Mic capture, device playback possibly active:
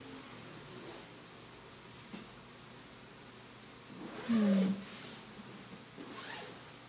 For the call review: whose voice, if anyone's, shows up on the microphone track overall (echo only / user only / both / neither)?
user only